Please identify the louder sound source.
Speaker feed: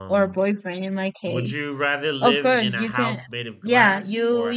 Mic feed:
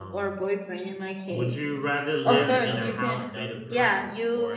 echo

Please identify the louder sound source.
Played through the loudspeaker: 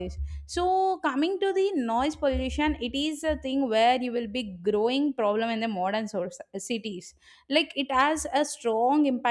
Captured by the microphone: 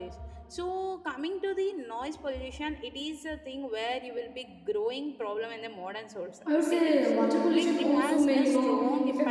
user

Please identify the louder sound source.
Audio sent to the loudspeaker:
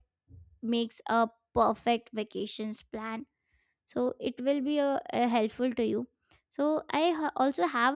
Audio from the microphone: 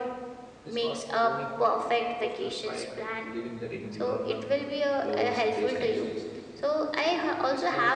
echo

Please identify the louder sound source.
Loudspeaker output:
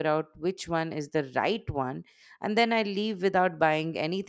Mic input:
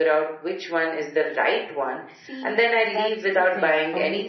echo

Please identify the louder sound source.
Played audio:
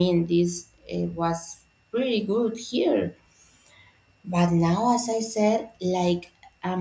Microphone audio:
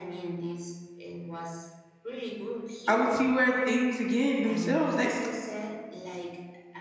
user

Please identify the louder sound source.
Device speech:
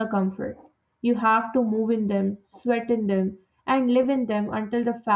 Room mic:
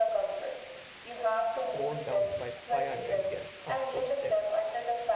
echo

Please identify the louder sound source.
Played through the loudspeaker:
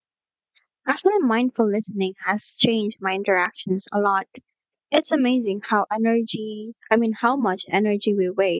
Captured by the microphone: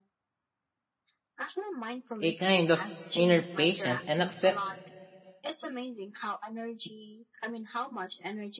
user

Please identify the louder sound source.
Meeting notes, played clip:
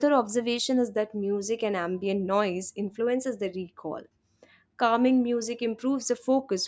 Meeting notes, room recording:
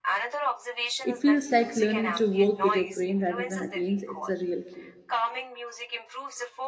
user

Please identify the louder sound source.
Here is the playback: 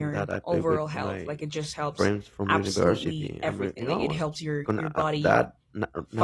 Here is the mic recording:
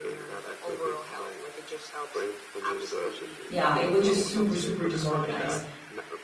user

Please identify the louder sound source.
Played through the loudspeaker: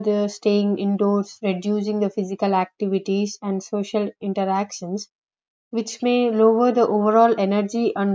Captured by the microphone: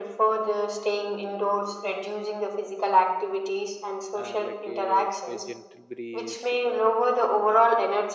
echo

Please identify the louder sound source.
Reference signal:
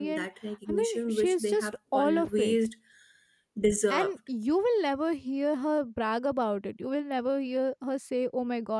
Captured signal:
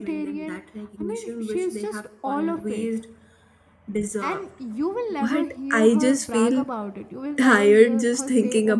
user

